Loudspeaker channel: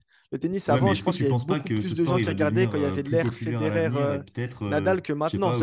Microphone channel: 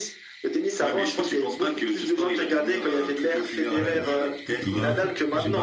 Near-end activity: present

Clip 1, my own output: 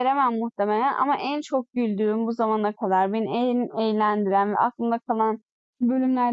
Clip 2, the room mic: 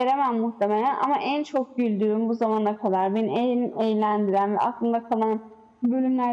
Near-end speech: none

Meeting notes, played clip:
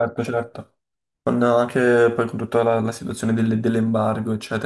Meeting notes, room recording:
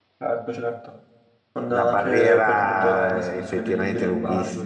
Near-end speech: present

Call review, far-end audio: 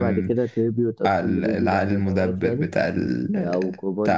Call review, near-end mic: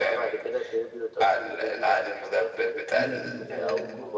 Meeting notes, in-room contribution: present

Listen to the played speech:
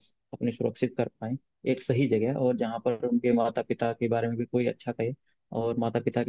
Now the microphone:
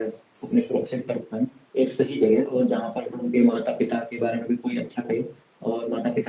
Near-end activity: none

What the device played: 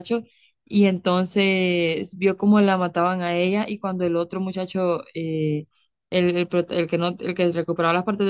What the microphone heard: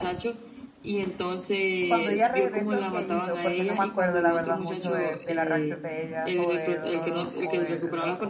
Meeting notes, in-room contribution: present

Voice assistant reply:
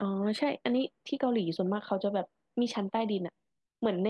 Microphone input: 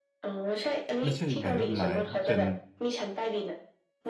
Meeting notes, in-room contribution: present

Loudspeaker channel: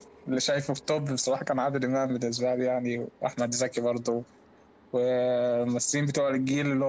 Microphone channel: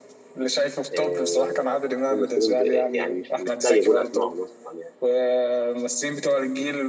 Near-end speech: present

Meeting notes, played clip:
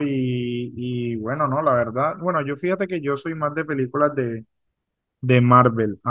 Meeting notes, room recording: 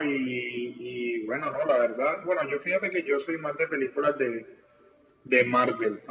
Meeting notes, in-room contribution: none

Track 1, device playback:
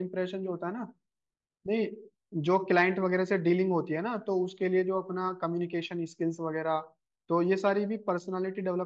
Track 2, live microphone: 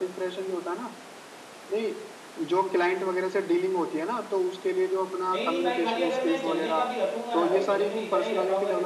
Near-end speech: present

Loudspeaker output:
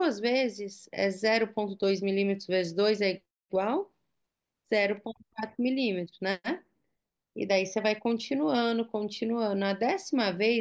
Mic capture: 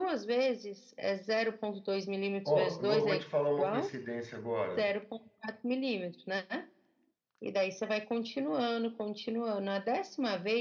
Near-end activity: present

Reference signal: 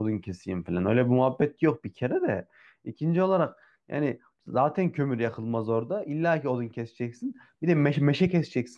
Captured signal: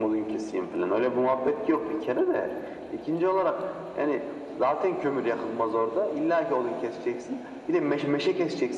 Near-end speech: none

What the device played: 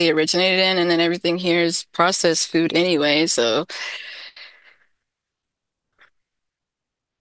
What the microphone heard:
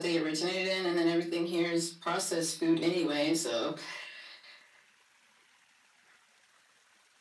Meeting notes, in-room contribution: none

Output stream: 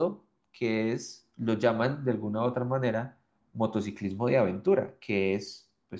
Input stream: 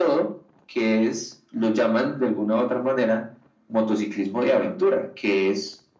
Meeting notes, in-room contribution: none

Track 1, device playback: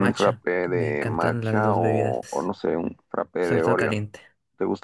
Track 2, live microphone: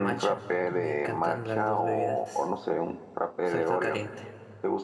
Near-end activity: none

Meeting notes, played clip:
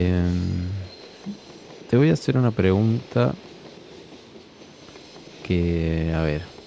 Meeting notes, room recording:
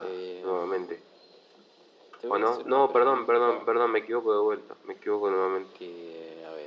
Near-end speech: present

